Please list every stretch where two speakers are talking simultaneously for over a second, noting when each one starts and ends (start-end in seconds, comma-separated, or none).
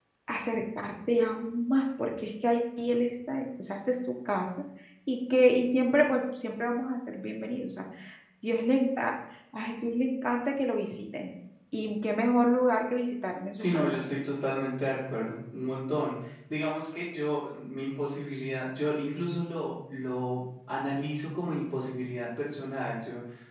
none